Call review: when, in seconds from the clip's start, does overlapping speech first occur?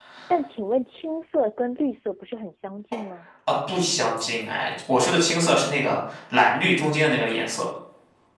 none

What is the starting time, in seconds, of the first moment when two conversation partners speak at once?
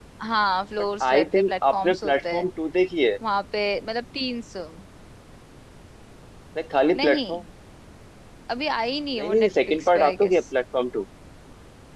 0.9 s

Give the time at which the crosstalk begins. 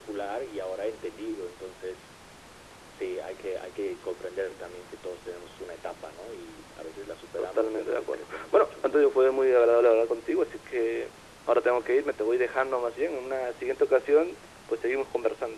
7.4 s

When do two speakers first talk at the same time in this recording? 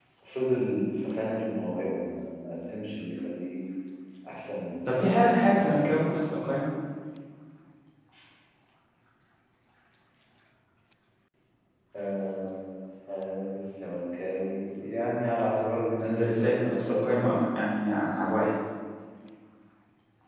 4.8 s

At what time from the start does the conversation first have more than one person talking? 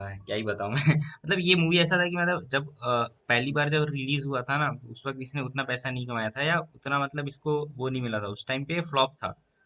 none

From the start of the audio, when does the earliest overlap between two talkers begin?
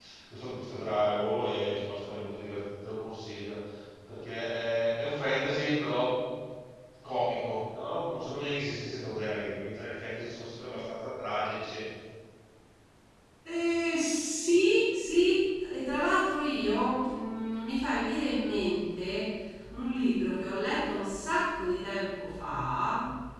none

